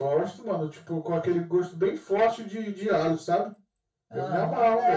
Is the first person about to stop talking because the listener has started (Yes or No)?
Yes